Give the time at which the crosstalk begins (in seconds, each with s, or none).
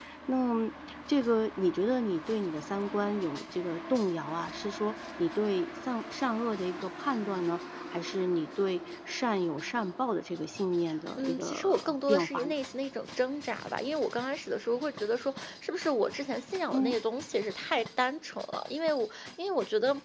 11.2 s